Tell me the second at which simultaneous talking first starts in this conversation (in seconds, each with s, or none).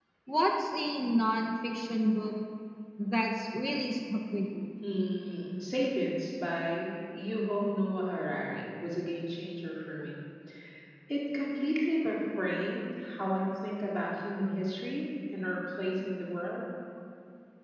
none